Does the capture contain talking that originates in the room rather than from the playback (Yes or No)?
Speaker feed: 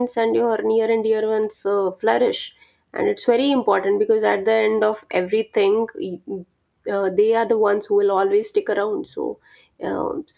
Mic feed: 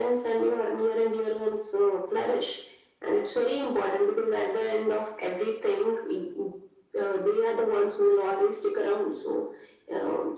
No